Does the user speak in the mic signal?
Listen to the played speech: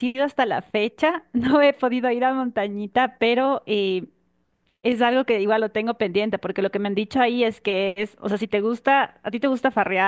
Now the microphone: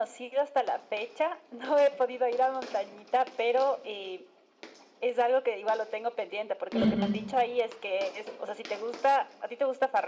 Yes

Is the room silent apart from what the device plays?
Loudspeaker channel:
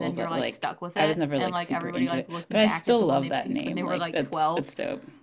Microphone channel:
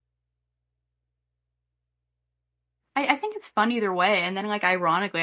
No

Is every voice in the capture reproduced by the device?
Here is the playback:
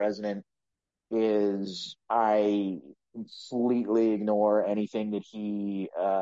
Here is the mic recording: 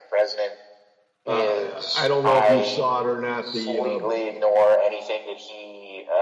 No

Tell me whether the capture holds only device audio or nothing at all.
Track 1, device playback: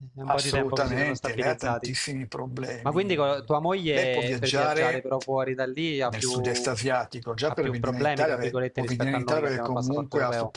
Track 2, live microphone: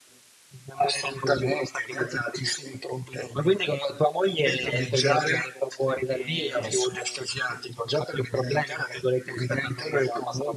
No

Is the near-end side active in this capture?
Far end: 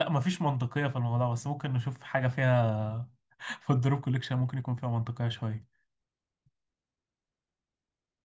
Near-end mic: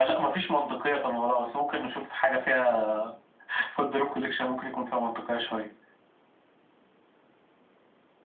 No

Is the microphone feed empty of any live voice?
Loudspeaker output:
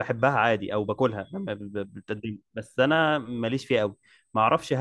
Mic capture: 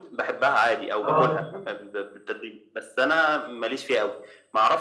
No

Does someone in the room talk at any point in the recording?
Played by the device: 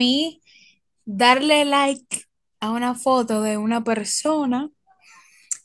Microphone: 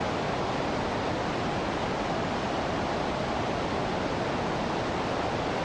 No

